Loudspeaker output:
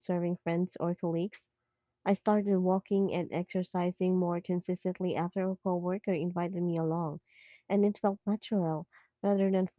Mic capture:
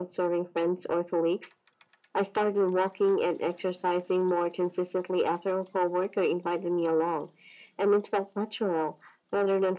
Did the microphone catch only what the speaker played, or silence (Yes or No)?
Yes